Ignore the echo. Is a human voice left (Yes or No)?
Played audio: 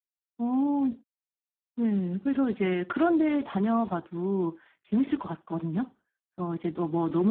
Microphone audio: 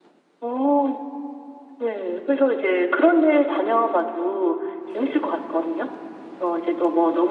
No